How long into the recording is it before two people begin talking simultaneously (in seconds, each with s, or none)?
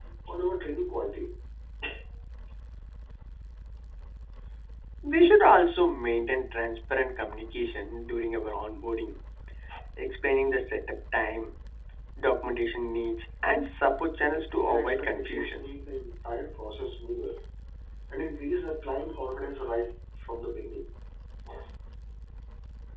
14.3 s